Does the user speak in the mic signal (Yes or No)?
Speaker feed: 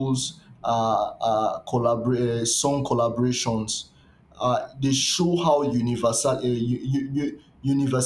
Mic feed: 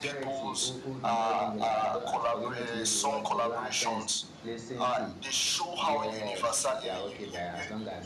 Yes